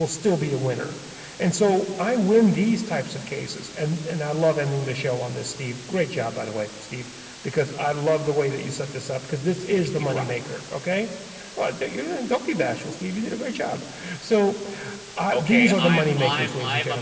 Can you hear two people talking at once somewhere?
Yes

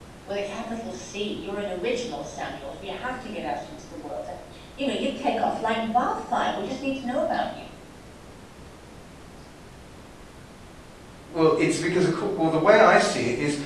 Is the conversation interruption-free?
Yes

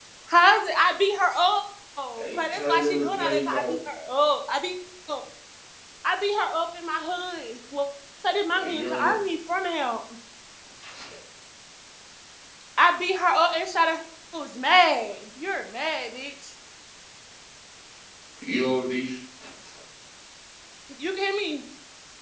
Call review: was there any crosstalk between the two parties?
Yes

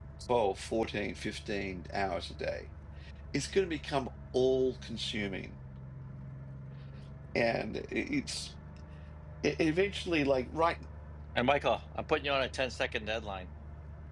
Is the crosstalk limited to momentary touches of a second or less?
Yes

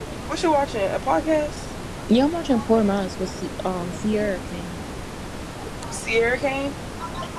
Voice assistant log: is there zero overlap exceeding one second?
Yes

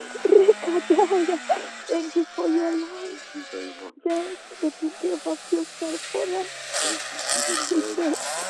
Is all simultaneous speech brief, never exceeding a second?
Yes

